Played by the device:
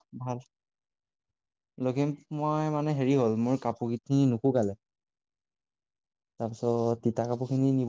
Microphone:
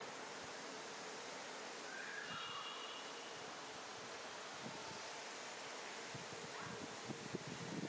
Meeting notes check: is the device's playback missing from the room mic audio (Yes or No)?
Yes